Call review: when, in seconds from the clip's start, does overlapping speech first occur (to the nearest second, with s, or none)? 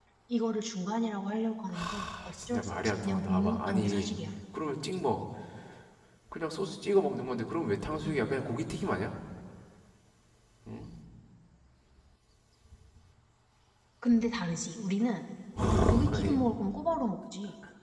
2 s